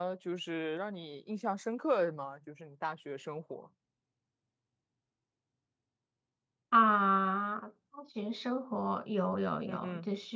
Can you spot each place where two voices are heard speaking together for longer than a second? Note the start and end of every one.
none

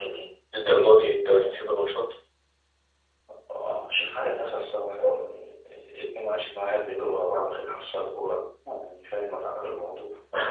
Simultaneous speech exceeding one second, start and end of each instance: 0.6-1.8

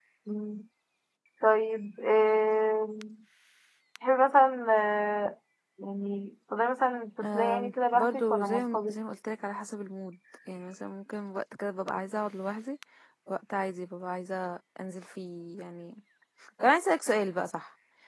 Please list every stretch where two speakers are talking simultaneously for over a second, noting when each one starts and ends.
7.2-9.0

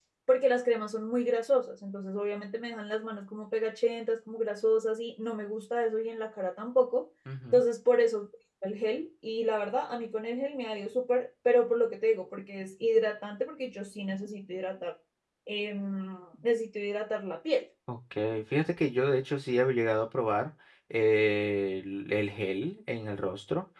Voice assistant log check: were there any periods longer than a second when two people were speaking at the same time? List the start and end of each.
none

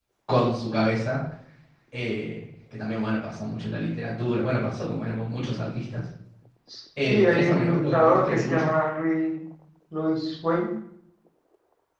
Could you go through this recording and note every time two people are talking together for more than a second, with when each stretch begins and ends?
7.1-8.7

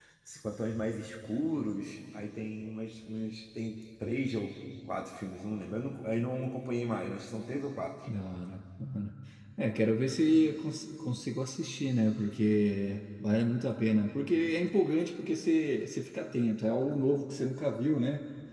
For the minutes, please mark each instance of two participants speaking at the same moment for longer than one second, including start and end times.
none

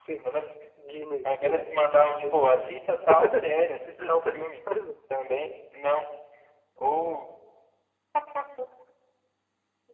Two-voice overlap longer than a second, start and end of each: 1.2-2.6

